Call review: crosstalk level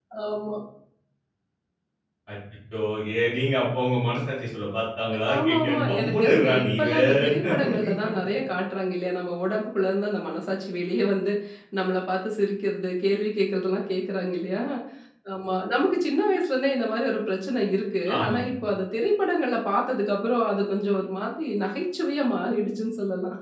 present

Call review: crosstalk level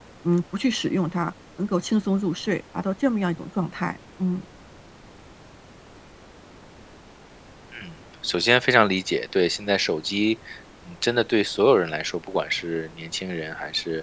none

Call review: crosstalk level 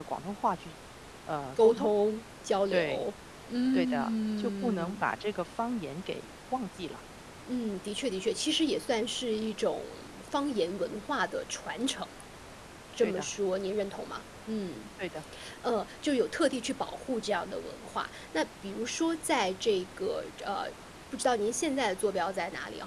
present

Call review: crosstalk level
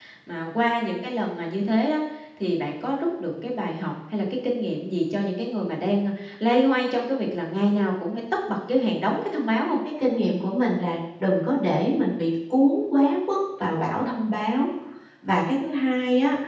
none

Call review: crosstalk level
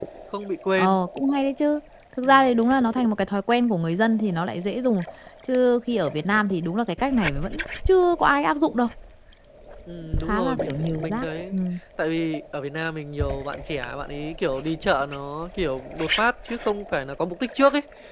present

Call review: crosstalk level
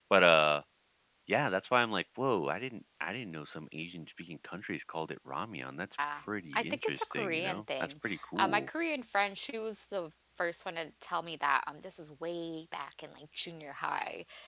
present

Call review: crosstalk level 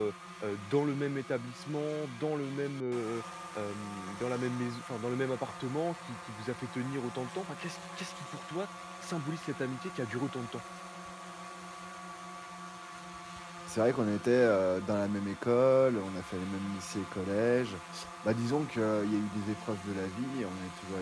none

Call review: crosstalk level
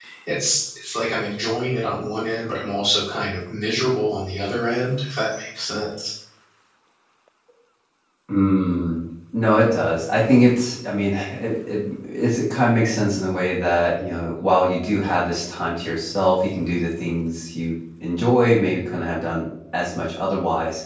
none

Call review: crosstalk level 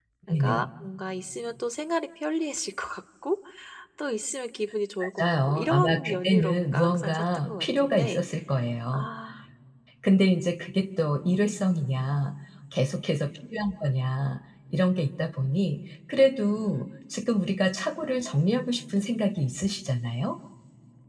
present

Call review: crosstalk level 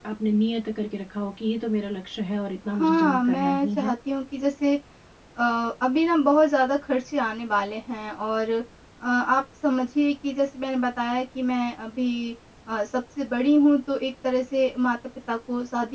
present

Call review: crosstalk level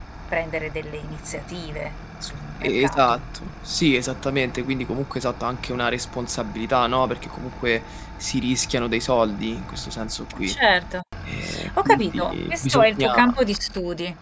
present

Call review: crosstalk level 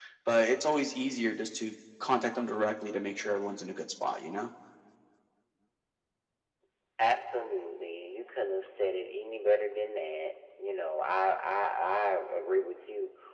none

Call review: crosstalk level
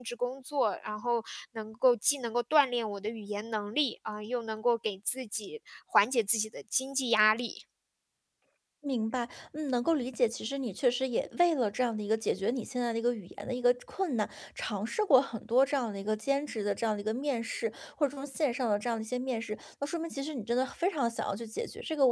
none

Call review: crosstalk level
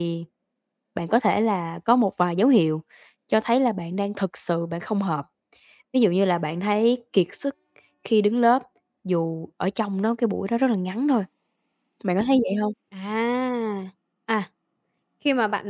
none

